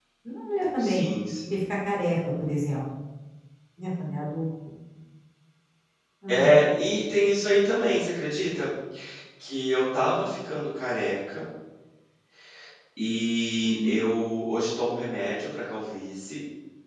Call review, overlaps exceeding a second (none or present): none